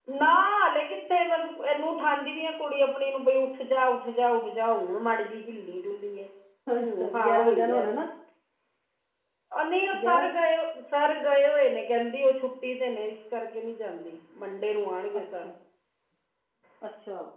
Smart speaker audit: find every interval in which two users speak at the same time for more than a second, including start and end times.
6.8-8.0

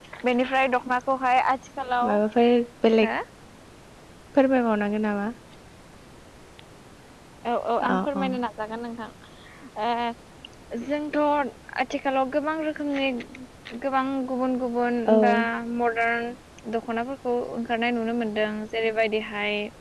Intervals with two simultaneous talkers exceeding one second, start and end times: none

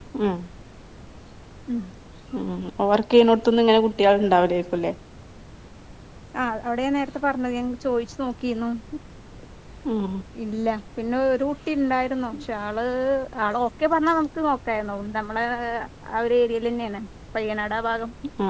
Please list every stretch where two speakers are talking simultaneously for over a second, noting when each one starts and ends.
none

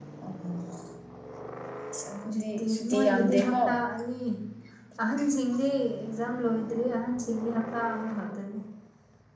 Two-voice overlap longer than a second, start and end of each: 2.3-3.5

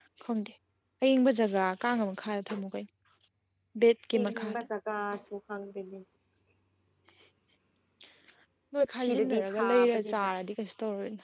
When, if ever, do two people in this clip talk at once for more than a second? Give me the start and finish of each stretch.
9.0-10.3

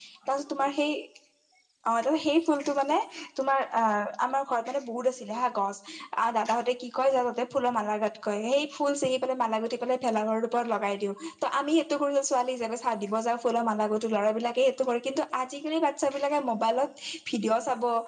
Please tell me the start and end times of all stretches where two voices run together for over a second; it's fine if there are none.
none

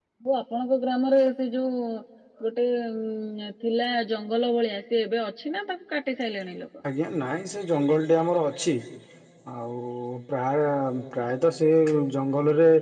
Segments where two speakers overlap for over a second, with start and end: none

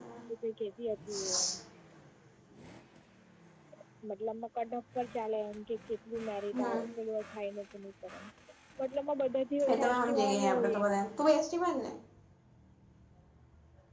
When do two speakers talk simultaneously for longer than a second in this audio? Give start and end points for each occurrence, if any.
9.7-10.9

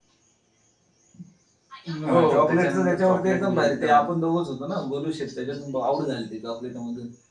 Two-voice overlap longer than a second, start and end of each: 2.1-4.0

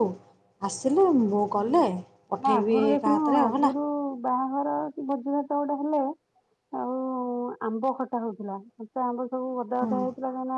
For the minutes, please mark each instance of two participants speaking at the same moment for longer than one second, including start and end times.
2.5-3.7

